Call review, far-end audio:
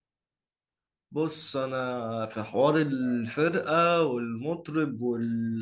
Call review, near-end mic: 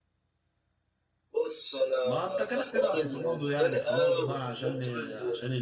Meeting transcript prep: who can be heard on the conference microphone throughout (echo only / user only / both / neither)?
both